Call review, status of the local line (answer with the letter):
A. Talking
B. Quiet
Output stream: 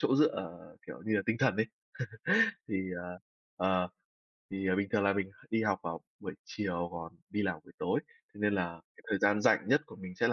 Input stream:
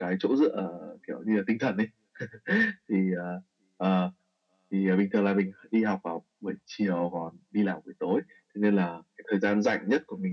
B